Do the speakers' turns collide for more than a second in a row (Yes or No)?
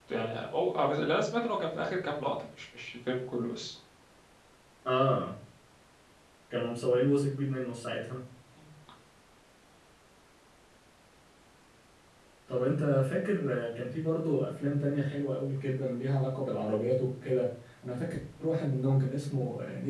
No